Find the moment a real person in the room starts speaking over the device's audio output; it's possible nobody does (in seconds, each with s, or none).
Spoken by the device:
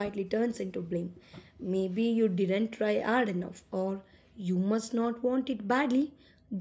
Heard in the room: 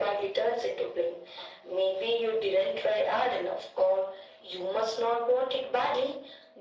none